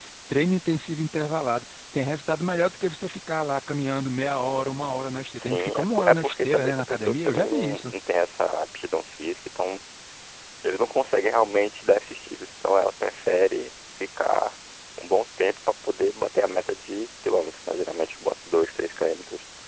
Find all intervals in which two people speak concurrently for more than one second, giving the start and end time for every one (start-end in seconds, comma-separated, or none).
5.4-7.9